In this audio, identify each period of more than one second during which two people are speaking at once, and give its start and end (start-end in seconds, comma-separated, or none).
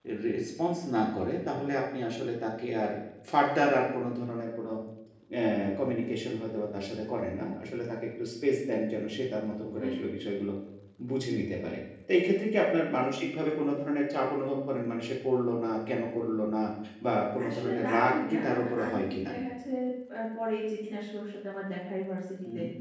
17.5-19.3